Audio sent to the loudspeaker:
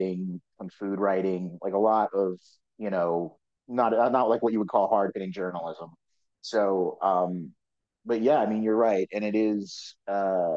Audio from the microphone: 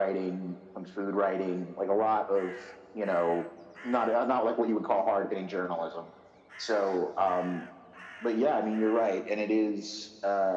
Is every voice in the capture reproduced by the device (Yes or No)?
Yes